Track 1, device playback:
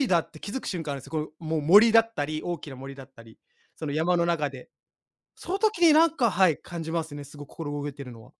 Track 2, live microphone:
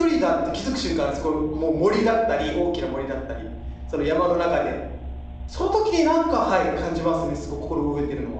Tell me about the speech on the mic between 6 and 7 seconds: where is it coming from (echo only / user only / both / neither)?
echo only